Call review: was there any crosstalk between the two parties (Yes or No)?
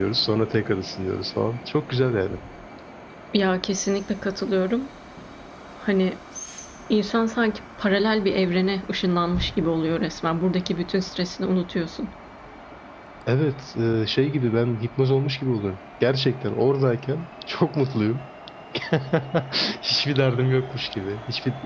No